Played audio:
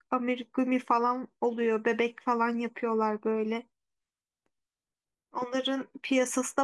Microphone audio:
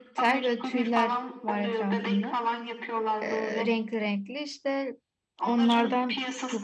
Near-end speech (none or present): present